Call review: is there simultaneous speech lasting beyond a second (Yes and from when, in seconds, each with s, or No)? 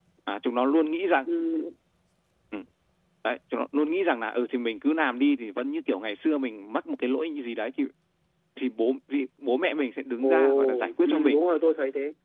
Yes, from 10.2 s